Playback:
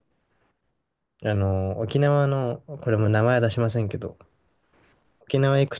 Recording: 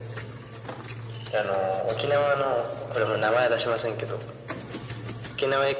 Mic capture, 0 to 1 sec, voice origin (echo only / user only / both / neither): neither